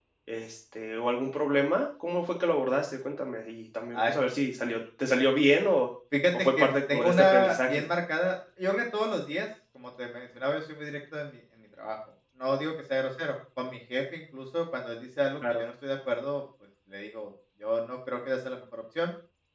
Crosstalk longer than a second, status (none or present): present